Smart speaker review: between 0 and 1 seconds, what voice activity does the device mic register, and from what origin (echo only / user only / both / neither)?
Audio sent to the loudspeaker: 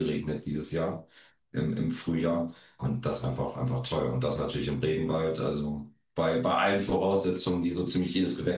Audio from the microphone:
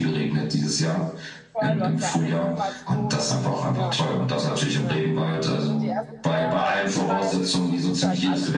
echo only